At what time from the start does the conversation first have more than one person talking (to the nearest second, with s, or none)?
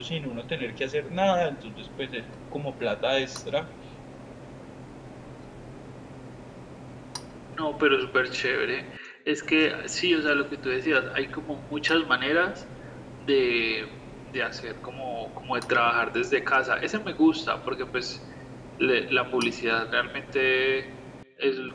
none